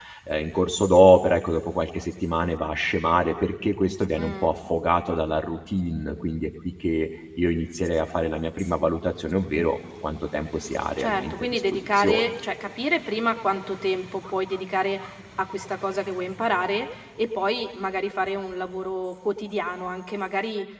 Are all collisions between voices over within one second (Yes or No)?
No